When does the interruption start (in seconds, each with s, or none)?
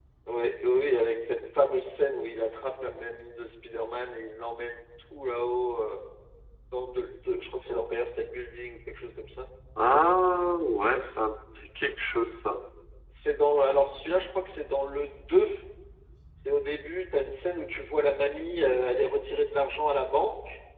none